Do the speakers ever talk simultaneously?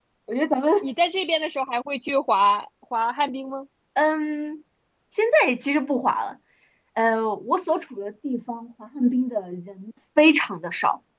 No

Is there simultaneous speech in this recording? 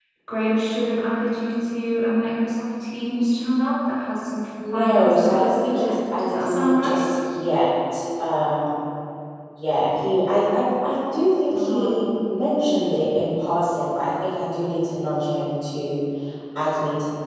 Yes, from 4.7 s

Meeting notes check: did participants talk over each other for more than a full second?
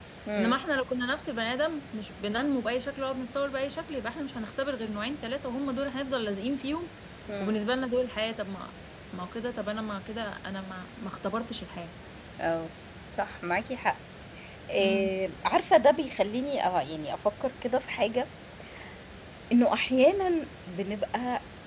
No

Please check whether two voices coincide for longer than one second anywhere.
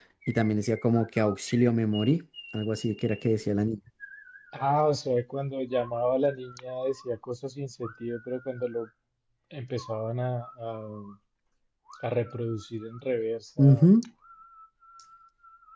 No

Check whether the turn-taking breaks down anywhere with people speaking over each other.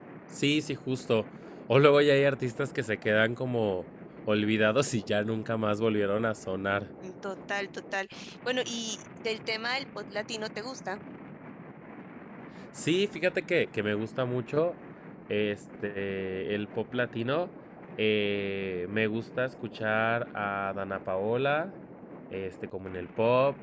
No

